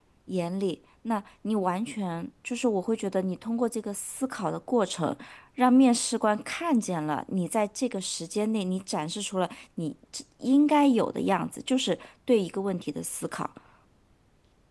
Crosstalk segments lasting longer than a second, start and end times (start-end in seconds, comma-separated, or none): none